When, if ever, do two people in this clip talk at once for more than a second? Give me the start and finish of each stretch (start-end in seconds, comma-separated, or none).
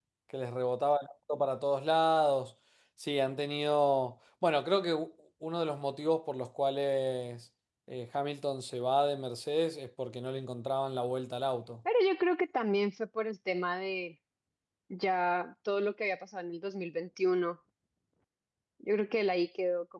none